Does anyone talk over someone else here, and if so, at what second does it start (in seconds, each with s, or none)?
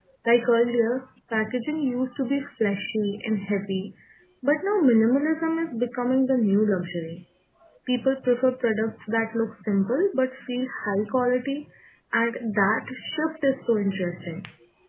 none